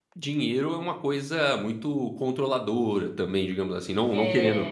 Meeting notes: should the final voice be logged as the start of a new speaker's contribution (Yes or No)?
No